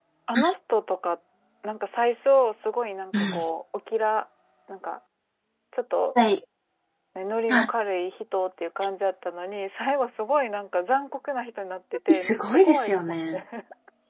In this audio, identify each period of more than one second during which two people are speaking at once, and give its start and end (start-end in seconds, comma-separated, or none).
12.1-13.4